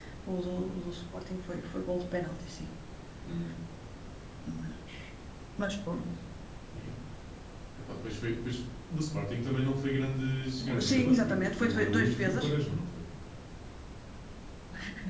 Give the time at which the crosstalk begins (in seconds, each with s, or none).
10.6 s